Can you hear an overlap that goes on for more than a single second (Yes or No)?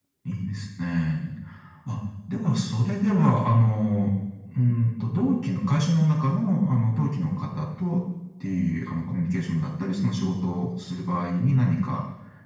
No